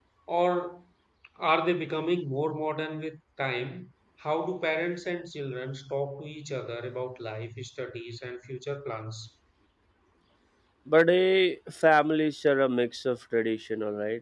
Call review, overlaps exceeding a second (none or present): none